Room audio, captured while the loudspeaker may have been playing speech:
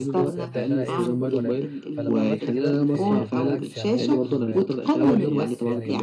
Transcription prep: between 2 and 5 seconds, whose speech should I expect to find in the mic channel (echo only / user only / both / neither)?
both